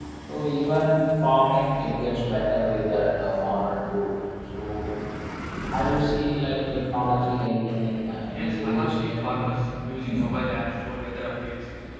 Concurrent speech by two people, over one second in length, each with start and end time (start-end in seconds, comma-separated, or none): 8.3-9.5